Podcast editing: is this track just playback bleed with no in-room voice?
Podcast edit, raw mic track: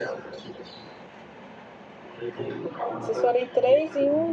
No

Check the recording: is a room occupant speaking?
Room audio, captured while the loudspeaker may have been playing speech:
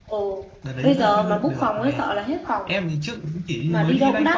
Yes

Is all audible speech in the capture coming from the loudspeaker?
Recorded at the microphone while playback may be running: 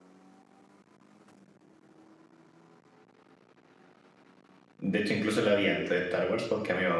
No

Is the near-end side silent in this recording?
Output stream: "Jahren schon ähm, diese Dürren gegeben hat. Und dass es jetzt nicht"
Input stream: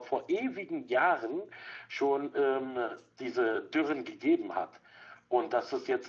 Yes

